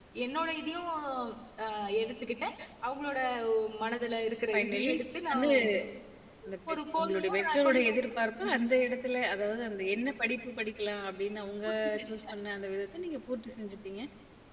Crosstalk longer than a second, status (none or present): present